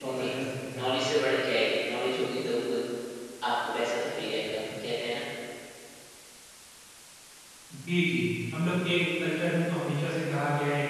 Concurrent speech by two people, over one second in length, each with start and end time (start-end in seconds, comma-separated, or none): none